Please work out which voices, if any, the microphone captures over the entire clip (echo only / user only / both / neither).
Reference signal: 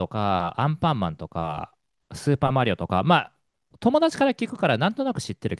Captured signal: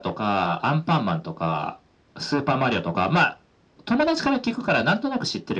echo only